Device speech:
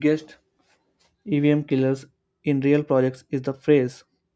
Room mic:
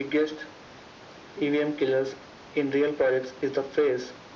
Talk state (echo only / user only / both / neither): echo only